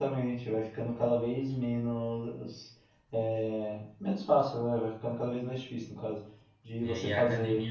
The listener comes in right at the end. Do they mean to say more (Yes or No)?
Yes